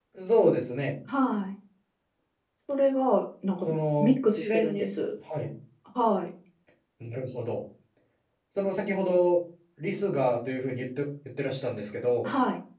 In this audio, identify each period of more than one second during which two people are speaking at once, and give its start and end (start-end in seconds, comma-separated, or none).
3.6-4.9